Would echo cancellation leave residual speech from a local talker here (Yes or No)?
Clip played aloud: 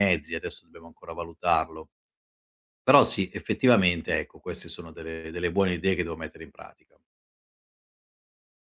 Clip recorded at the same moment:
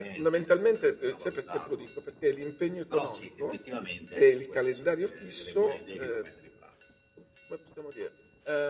Yes